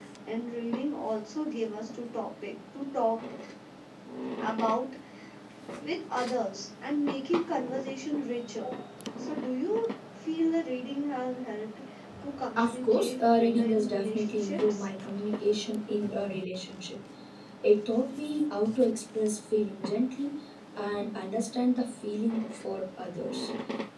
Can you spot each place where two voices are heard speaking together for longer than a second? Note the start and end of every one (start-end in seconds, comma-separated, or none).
12.6-14.8